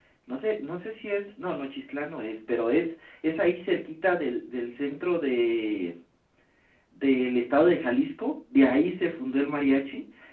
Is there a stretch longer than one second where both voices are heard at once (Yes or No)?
No